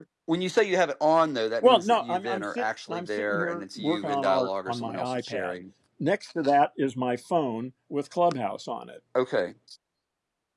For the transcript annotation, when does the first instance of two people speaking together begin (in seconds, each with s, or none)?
1.6 s